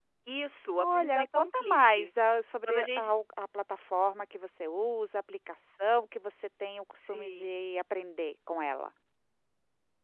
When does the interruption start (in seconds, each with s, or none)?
0.8 s